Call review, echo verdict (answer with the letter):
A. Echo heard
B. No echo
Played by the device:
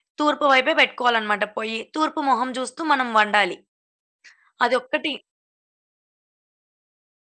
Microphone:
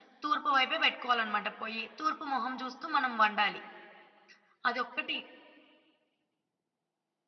A